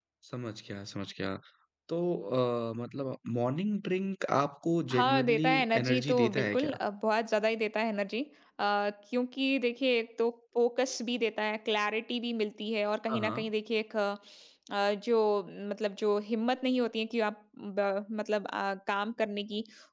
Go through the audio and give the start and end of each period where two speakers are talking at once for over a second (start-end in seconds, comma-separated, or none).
4.9-6.8